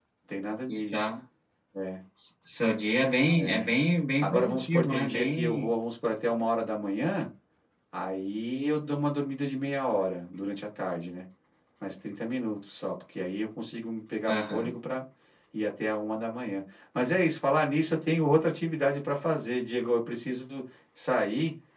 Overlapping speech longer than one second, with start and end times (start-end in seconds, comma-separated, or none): 4.2-5.7